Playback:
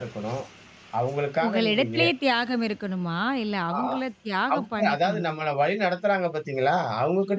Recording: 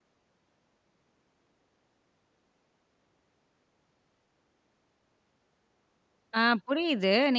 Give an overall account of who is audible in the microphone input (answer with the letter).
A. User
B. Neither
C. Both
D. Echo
A